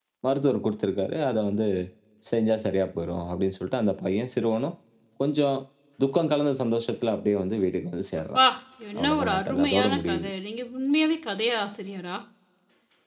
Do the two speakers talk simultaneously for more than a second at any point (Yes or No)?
Yes